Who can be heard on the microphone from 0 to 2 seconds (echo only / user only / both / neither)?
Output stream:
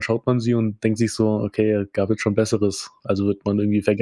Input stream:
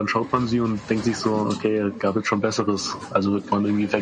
echo only